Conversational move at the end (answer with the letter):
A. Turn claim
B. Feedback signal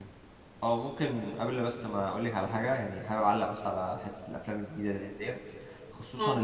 B